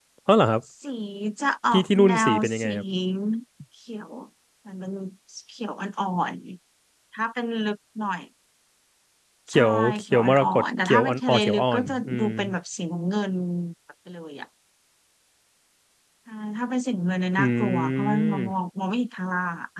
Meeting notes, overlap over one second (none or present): present